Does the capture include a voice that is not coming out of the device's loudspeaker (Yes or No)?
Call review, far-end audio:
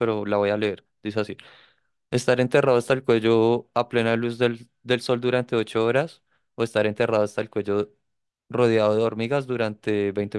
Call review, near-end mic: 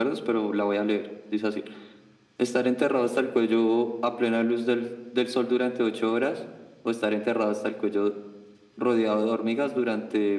No